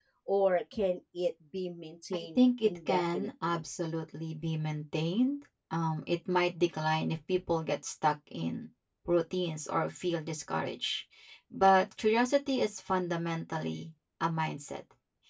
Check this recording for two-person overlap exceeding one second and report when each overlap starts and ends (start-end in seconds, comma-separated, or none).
2.1-3.7